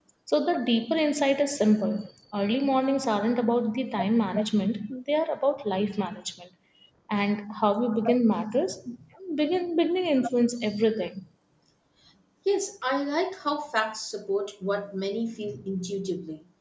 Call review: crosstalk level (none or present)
none